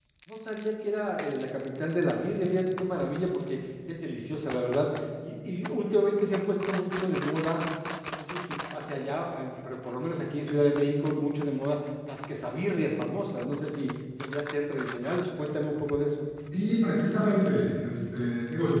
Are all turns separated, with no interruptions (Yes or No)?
Yes